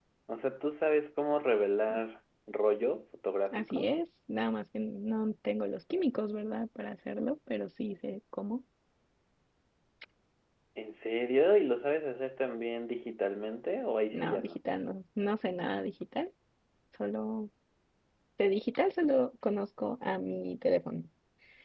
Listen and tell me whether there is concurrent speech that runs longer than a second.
No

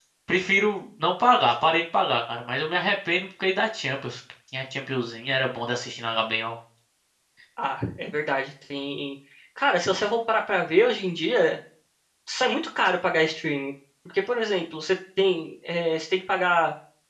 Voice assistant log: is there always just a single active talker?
Yes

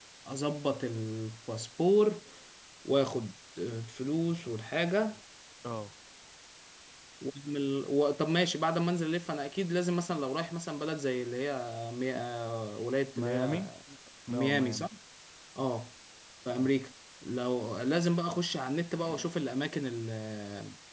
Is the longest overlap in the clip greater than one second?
No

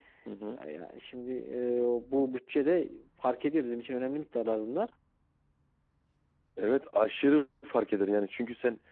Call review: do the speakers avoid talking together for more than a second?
Yes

